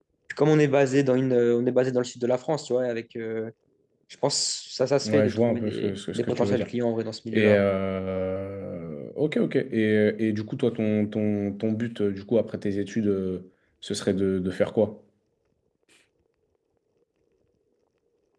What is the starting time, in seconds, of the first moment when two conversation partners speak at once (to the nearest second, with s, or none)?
5 s